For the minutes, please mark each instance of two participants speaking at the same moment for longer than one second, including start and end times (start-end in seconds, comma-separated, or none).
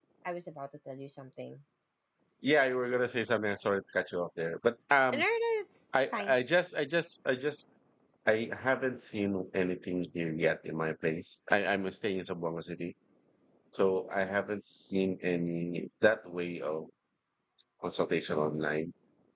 none